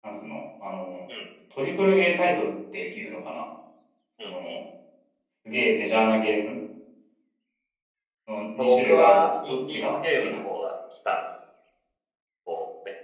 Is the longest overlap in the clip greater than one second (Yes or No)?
Yes